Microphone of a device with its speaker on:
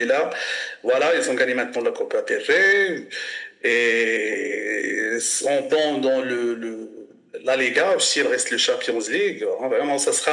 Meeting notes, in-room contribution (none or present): none